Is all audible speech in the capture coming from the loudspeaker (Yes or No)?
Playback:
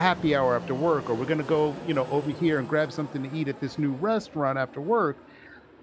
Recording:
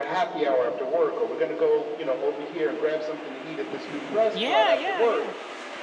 No